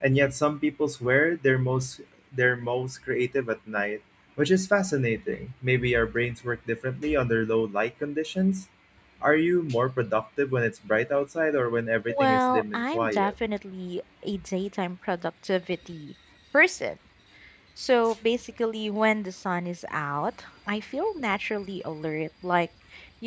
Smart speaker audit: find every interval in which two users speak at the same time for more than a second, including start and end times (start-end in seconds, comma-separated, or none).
12.1-13.3